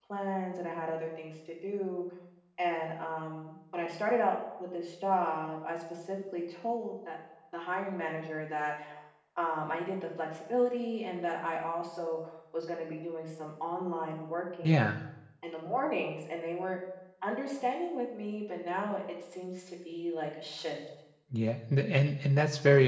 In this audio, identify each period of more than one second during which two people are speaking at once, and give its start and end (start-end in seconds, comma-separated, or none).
none